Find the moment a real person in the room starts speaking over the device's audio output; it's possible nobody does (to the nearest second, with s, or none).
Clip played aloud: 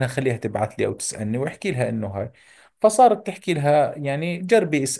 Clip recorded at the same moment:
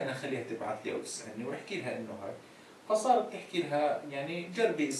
none